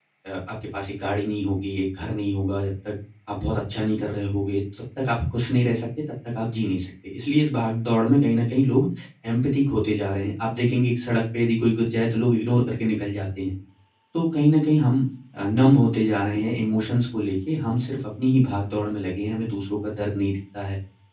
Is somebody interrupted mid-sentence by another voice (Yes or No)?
No